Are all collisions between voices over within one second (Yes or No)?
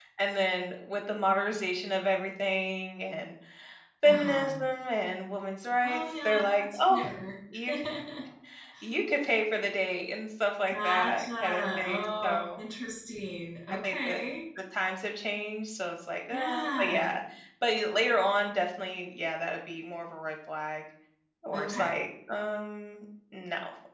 No